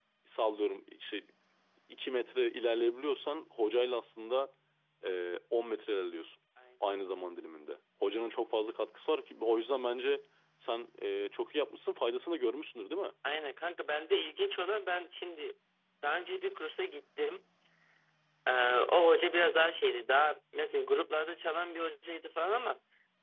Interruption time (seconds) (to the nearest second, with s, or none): none